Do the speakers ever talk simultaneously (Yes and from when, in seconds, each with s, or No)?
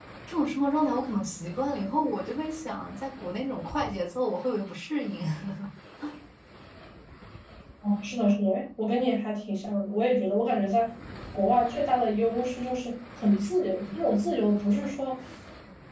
No